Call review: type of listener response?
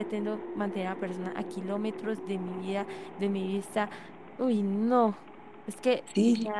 taking over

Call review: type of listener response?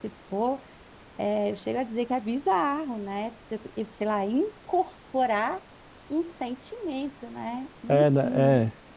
taking over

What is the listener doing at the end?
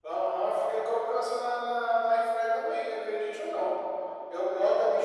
listening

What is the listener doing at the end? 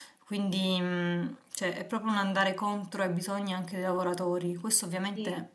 listening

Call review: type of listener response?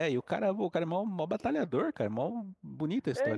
taking over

